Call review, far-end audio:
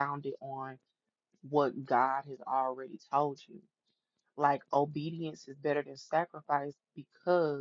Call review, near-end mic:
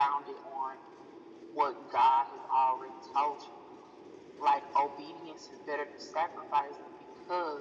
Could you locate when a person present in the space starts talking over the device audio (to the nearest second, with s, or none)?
none